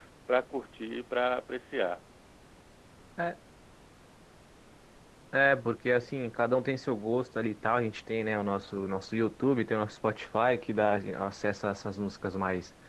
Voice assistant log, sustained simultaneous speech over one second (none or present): none